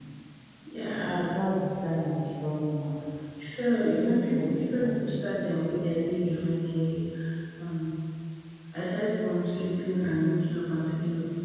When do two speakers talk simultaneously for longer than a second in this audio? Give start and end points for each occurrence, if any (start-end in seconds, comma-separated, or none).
3.9-5.2